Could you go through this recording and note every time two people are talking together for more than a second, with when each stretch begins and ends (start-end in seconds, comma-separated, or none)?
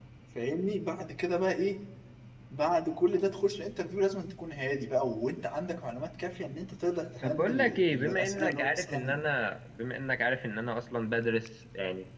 7.2-9.2